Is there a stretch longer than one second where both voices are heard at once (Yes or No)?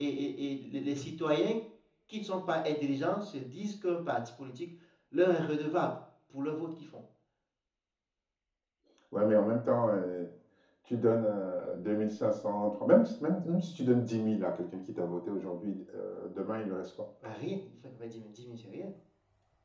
No